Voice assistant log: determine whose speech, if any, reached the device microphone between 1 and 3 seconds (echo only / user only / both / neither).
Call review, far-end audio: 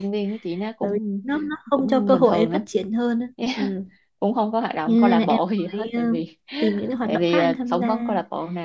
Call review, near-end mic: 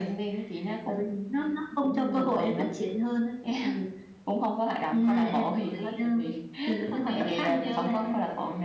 echo only